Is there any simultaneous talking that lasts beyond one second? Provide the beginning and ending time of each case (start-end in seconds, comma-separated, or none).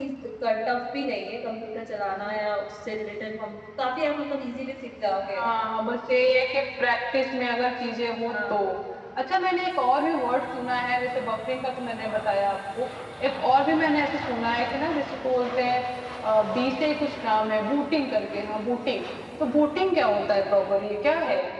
none